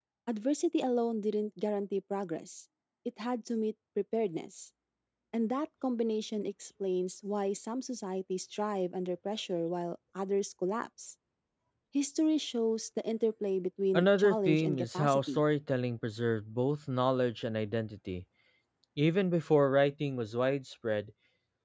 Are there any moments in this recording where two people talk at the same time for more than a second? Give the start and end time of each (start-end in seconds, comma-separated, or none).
13.9-15.4